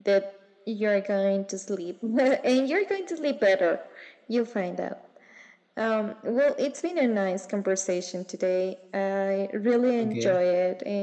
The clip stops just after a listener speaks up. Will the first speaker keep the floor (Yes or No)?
Yes